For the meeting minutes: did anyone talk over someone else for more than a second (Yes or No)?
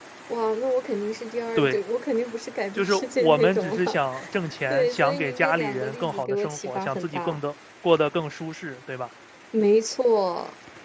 Yes